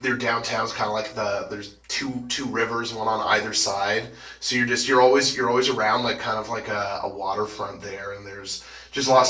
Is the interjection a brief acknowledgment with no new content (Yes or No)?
No